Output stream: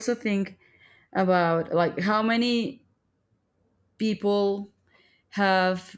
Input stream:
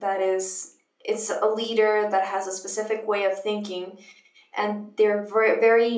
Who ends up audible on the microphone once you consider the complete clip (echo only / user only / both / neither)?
user only